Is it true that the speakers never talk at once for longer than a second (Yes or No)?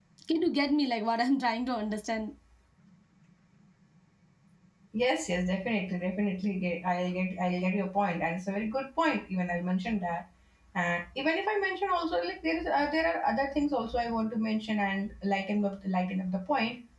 Yes